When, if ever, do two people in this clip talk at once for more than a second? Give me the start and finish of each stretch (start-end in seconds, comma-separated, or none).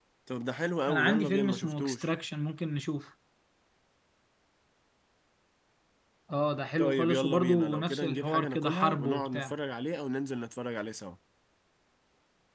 0.9-2.1, 6.8-9.6